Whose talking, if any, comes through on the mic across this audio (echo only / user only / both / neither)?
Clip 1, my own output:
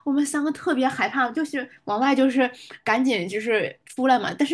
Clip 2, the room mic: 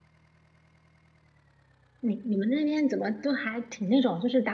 user only